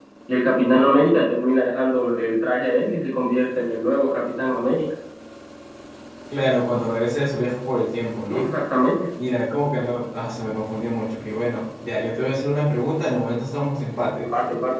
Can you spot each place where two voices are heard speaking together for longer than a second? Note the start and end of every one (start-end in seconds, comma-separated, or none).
none